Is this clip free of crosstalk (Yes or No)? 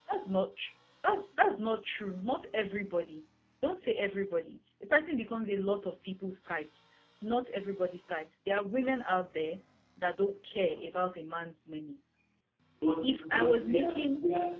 No